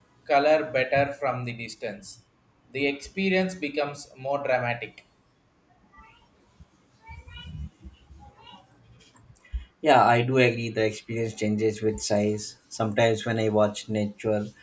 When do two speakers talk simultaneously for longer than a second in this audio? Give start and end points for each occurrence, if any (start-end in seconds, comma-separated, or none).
none